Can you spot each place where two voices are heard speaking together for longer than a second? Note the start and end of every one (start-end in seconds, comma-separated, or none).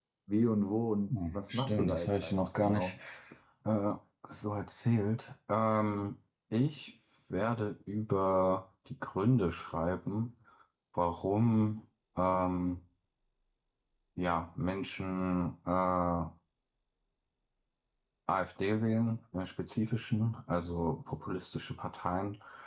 1.1-2.9